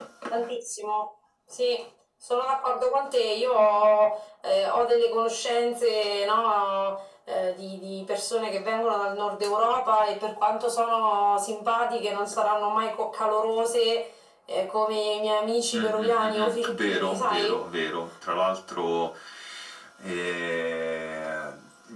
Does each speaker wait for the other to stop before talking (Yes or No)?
No